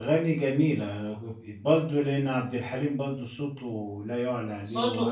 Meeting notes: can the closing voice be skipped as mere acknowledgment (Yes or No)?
No